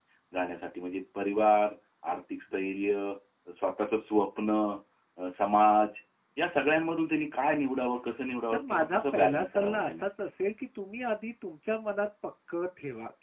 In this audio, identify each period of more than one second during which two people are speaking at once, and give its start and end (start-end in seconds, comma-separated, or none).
8.5-10.0